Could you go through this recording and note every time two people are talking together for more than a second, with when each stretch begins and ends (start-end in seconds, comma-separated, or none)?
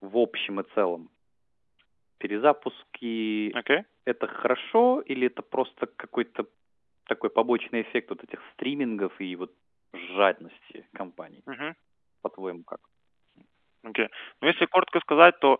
none